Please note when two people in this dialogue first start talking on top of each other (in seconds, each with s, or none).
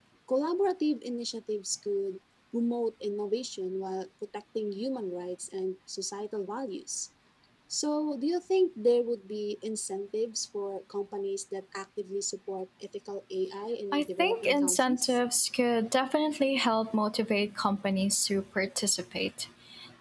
13.9 s